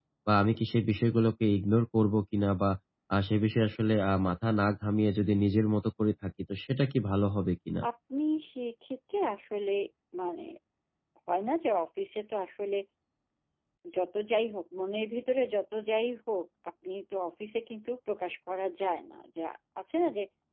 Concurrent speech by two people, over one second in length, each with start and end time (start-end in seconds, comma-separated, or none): none